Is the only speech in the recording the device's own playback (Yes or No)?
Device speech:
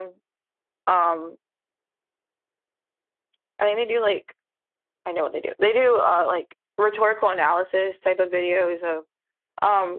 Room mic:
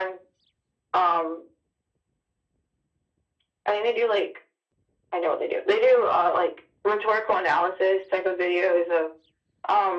Yes